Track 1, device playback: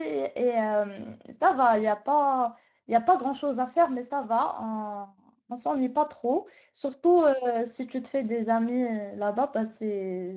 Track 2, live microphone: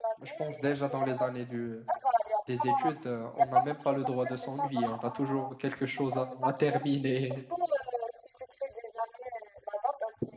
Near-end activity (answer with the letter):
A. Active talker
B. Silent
A